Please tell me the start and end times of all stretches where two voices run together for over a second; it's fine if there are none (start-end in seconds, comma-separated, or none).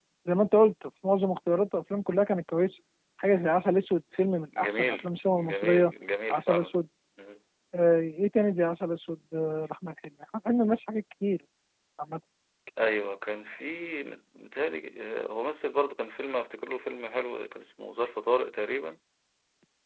4.6-5.9